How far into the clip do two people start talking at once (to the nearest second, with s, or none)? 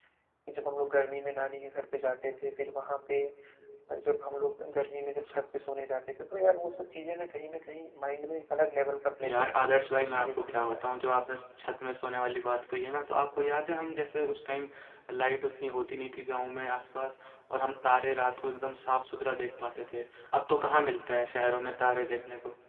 9 s